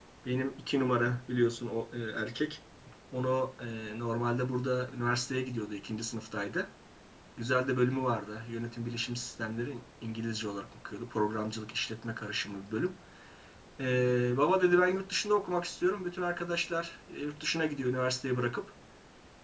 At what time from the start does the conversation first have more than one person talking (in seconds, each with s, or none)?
none